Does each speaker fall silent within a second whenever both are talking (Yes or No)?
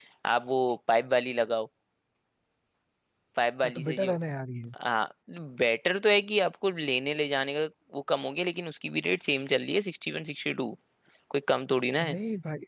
Yes